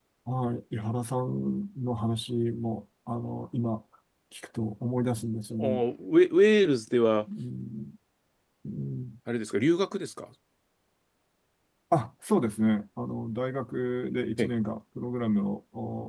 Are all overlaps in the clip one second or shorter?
Yes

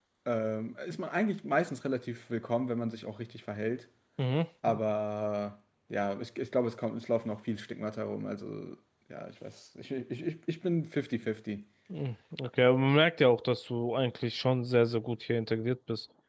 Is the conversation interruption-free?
Yes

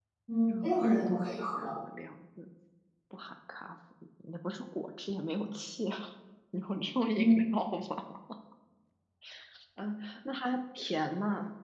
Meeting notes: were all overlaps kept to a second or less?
No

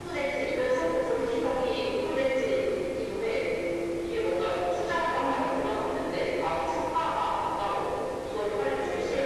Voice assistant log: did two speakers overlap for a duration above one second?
Yes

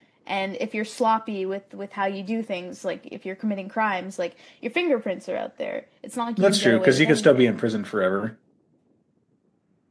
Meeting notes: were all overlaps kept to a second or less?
No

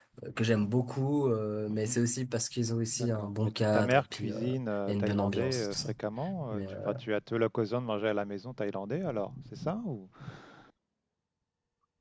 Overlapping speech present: Yes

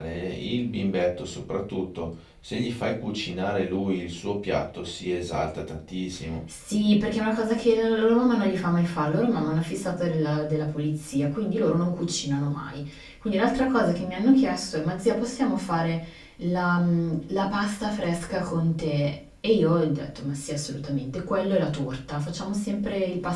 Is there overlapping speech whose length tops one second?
No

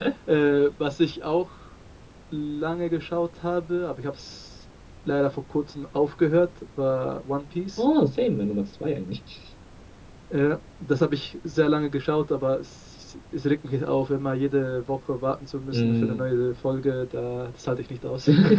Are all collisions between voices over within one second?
Yes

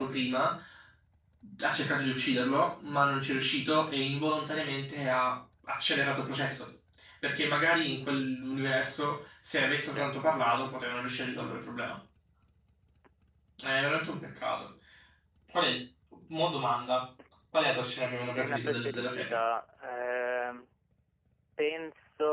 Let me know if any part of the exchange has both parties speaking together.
Yes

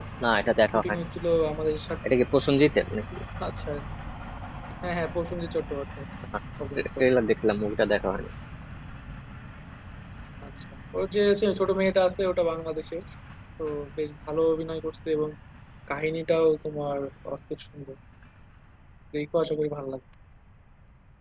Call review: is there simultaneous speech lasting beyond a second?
No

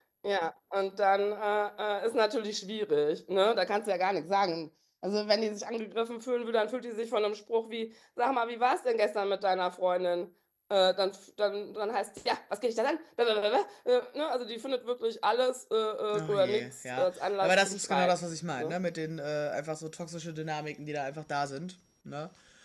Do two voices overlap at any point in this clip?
Yes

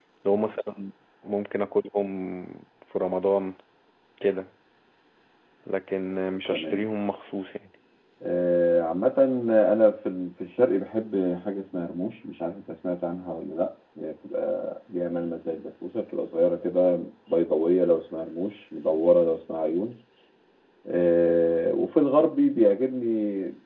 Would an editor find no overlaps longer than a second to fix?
Yes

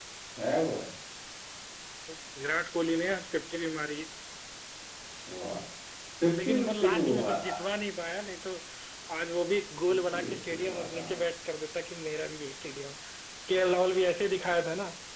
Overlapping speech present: Yes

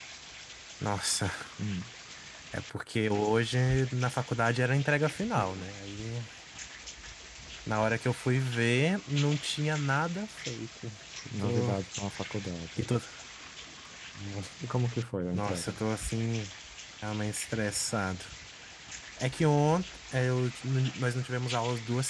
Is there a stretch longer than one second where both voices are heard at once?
No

